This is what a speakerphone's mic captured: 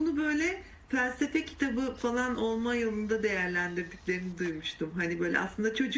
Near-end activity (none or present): none